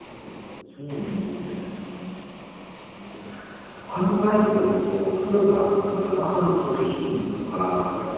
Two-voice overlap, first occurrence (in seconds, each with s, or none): none